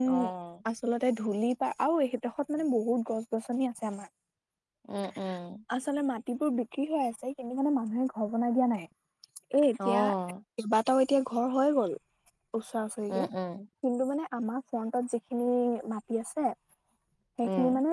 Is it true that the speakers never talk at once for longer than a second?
Yes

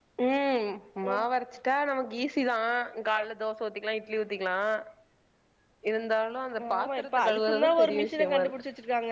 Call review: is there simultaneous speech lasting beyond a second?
Yes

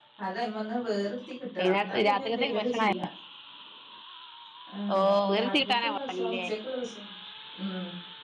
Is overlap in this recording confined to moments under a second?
No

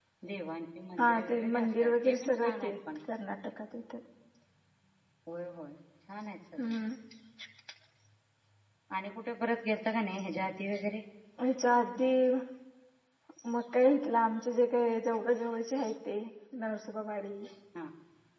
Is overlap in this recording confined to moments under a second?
No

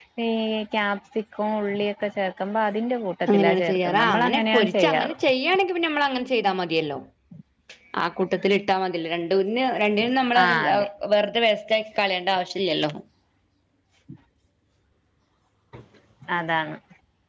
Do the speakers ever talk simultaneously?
Yes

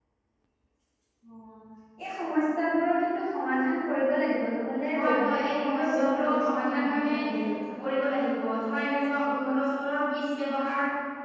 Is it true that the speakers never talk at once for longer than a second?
No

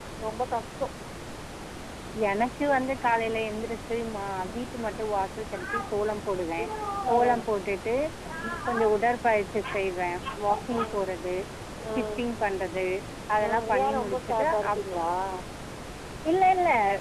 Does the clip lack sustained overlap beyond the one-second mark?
No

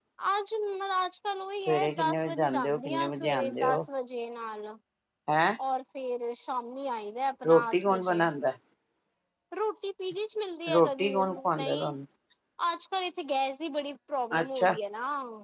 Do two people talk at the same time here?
Yes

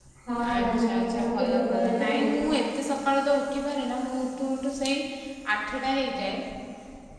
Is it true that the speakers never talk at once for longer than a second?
No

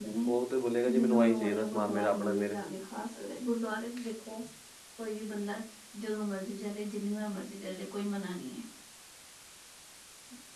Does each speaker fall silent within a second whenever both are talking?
No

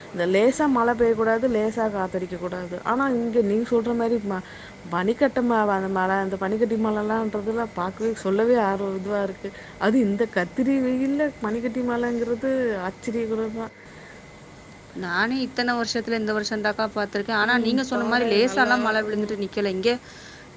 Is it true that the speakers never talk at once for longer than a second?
No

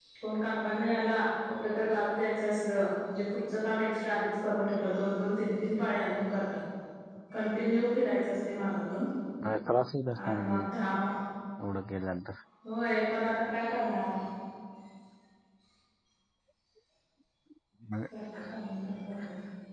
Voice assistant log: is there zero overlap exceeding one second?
Yes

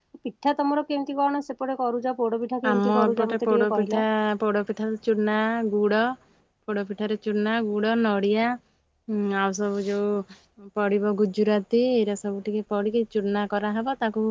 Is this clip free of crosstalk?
No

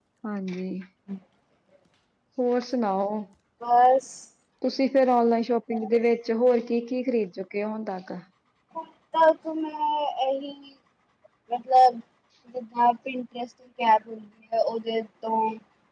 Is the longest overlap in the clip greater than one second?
No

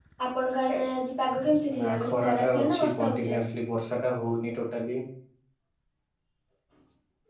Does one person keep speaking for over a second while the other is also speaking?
Yes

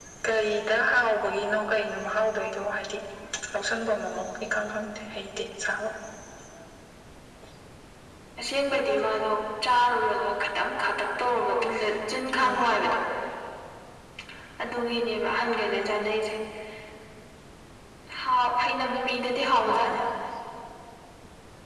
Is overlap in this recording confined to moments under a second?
Yes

